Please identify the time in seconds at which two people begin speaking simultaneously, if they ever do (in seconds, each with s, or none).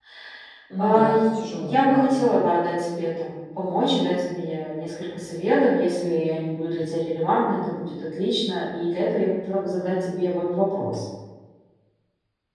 0.8 s